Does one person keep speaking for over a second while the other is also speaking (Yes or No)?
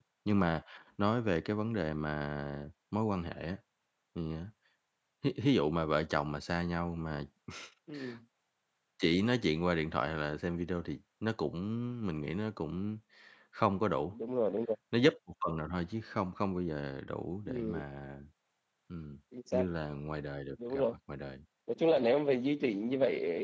No